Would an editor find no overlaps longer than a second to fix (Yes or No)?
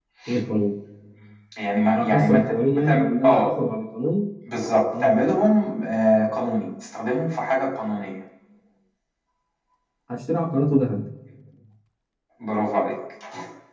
No